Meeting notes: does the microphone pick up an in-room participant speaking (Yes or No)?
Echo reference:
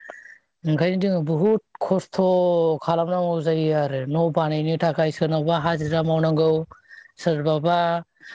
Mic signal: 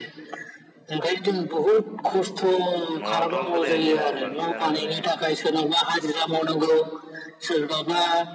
Yes